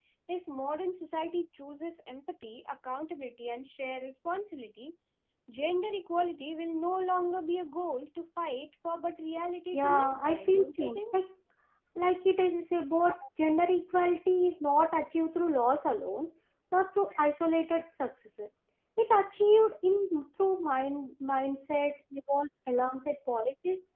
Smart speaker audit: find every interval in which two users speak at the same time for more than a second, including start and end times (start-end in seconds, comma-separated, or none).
9.7-11.2